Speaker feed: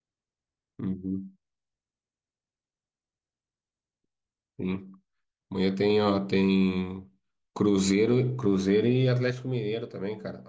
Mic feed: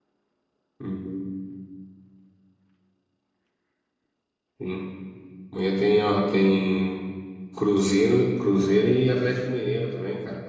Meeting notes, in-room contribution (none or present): none